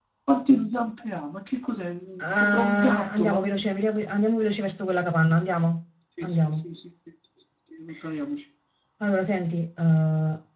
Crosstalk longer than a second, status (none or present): present